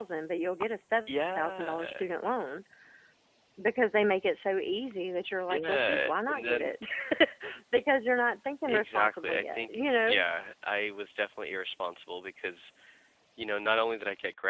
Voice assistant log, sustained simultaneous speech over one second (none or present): present